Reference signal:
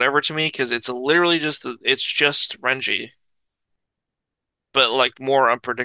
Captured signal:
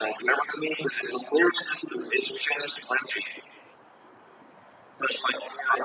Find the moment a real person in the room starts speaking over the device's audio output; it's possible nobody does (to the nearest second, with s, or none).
none